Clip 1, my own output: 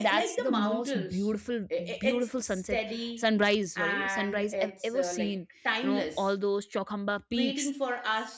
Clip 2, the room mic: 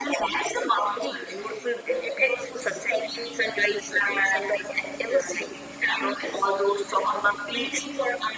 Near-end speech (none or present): none